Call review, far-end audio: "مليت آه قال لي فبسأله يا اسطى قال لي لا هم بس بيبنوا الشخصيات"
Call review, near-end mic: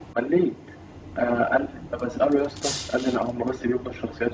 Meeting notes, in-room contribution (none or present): none